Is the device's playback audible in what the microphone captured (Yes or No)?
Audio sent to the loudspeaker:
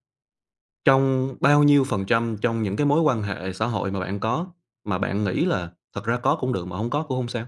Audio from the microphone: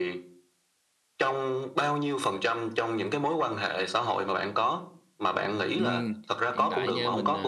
Yes